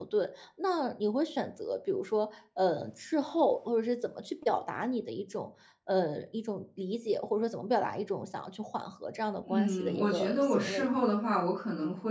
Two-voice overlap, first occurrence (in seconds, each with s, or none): 9.5 s